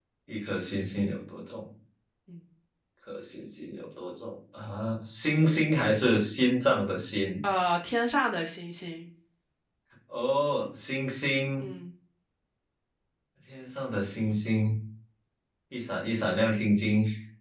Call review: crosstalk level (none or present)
none